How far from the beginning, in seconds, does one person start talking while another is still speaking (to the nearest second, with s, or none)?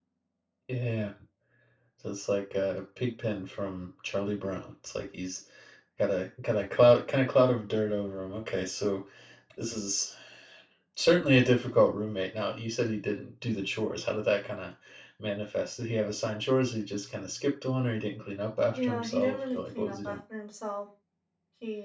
19 s